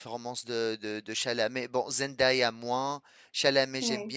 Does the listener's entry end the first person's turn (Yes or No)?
No